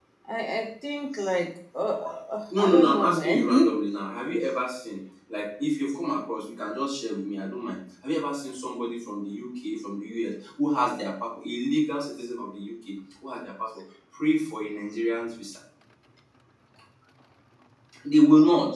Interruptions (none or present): present